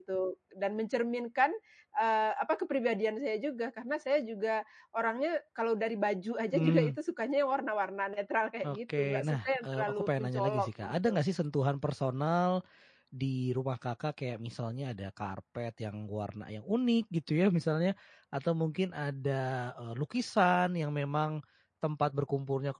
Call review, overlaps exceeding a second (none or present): present